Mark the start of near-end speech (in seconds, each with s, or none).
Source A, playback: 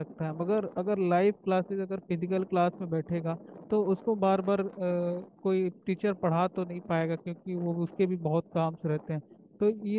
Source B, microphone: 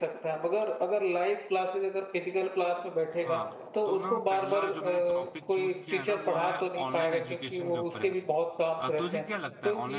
3.2 s